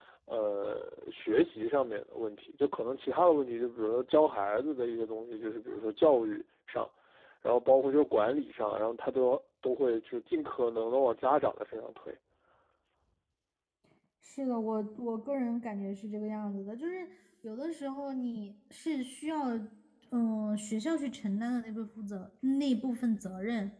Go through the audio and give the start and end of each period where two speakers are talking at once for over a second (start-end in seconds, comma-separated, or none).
none